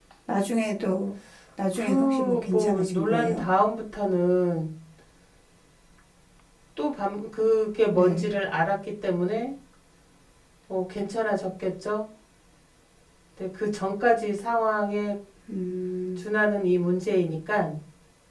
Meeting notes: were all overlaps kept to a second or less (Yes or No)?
No